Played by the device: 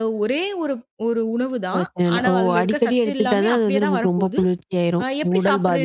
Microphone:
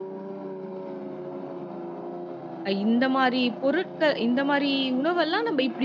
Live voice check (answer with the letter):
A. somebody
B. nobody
A